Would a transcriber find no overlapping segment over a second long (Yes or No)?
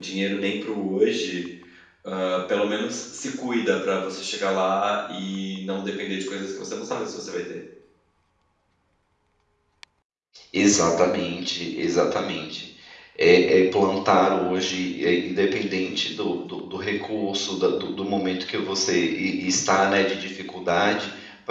Yes